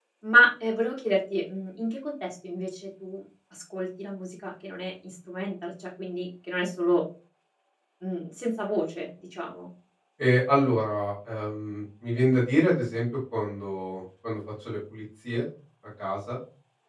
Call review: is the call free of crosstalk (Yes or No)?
Yes